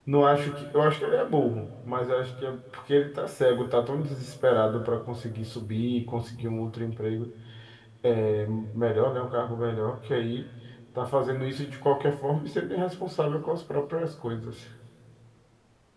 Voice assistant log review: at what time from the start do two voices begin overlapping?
none

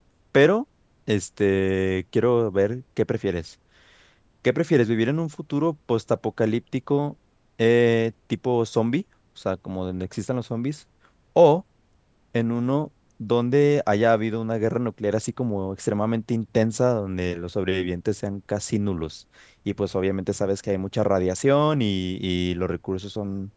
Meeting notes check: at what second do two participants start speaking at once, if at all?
none

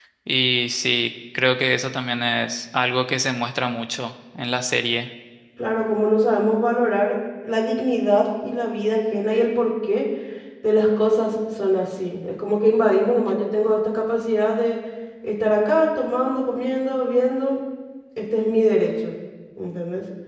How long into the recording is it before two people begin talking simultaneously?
none

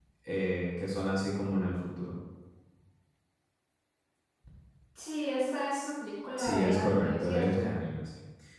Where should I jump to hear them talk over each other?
6.4 s

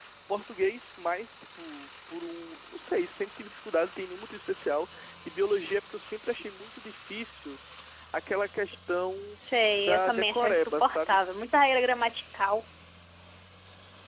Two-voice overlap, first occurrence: 9.8 s

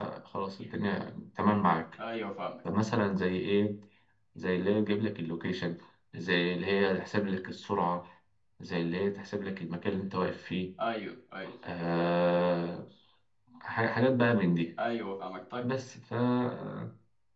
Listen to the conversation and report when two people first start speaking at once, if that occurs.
none

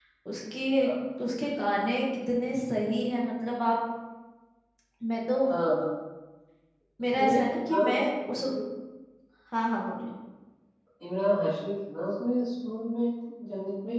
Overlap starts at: 7.2 s

